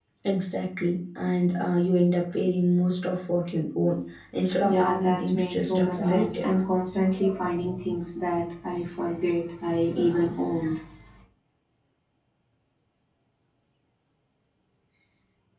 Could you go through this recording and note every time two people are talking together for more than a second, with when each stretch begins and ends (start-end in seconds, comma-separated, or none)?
4.6-6.5